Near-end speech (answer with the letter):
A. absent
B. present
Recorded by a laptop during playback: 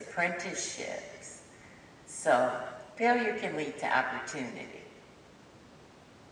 A